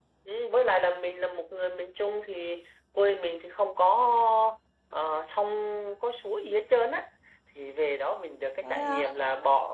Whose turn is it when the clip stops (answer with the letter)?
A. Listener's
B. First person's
B